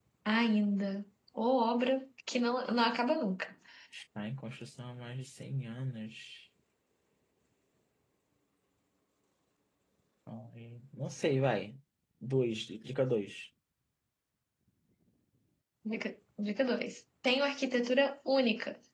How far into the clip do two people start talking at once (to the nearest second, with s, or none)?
none